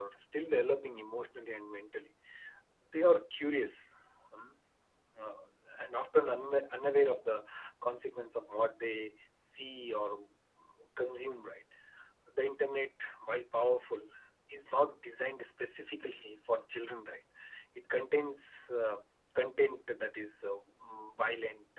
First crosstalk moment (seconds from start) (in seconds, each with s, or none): none